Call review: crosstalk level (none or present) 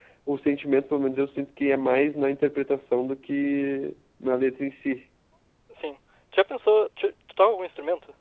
none